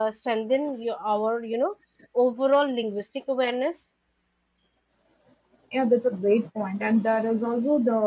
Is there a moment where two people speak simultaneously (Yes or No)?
No